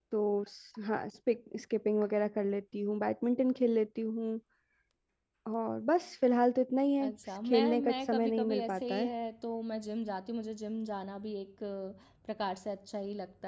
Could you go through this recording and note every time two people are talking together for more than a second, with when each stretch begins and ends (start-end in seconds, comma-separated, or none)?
7.5-9.1